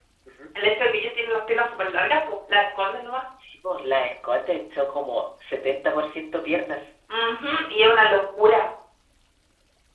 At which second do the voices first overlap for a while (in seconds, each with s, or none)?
none